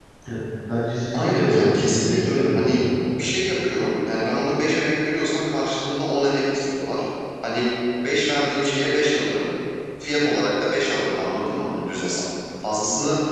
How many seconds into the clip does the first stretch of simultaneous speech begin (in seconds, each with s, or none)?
1.1 s